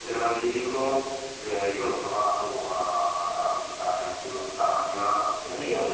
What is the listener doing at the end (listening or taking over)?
listening